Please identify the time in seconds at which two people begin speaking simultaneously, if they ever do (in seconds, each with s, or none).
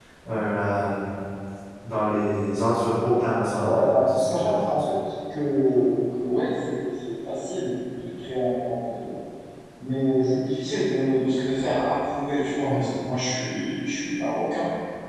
3.5 s